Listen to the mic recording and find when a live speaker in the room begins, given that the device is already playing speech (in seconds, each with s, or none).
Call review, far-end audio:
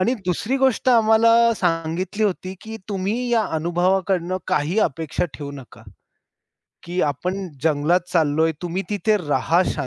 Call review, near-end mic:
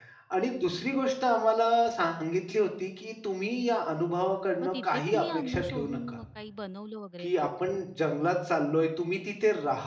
4.6 s